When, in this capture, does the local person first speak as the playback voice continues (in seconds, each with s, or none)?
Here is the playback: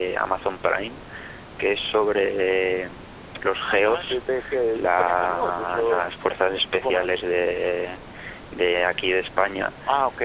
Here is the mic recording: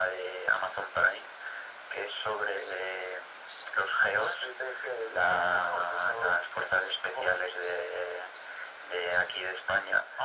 none